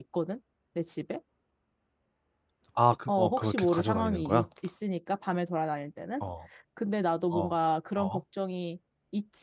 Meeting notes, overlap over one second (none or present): present